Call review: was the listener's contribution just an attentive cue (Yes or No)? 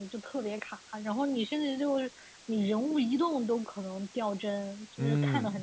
No